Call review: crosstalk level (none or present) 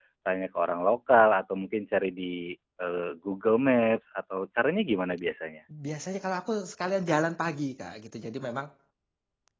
none